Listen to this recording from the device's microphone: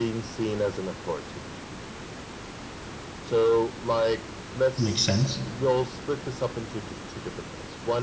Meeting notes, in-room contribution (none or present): present